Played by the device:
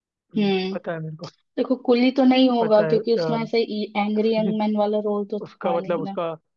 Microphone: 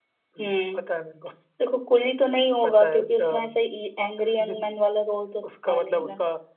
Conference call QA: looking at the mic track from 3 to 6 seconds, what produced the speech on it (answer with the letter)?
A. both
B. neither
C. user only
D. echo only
D